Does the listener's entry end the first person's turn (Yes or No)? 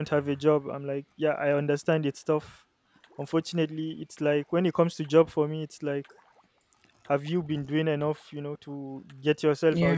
No